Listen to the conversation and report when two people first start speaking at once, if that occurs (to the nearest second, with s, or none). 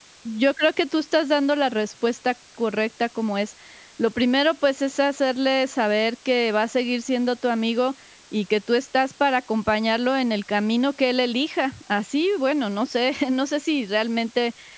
none